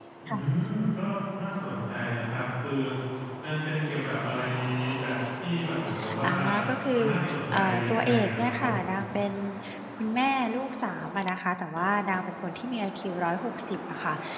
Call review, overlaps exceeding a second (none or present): present